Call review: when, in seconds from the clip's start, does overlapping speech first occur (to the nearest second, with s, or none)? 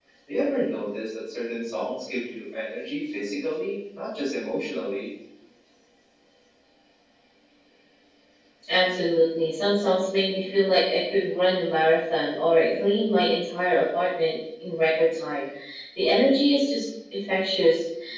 none